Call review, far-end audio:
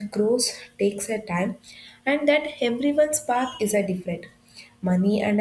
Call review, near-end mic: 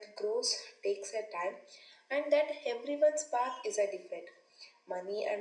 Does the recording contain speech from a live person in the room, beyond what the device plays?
No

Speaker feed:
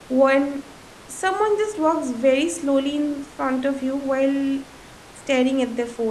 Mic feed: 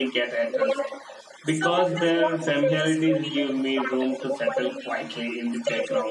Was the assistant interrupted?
Yes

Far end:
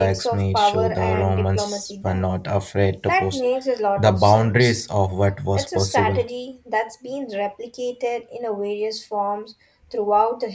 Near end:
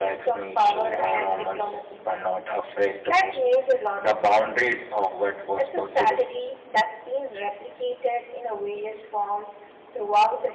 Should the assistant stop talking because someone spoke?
Yes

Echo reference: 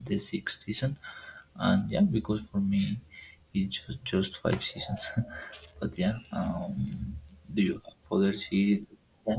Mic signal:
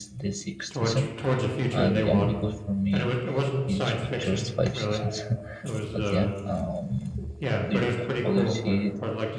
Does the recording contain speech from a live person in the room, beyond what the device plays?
Yes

